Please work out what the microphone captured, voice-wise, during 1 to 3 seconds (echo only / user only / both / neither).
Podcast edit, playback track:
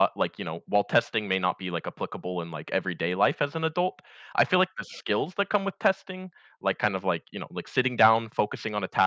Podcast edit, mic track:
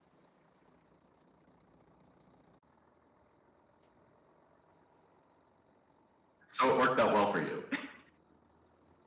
neither